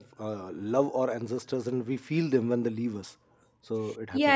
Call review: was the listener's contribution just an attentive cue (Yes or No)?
No